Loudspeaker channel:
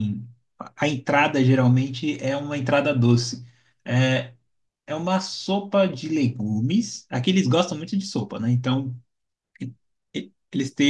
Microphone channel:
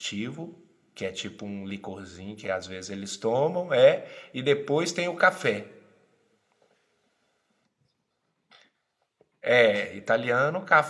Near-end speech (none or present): present